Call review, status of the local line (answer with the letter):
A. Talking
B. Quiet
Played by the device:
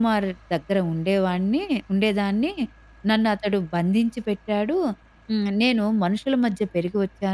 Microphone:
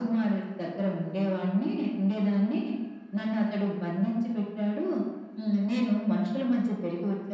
B